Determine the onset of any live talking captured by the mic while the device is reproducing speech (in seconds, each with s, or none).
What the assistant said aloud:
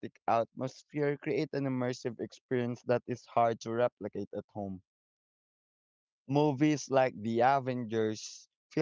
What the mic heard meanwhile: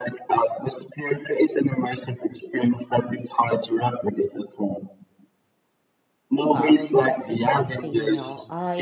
6.4 s